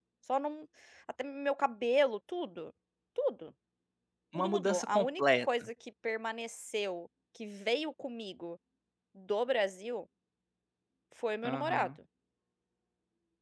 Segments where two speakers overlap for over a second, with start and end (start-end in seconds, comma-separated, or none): 4.4-5.7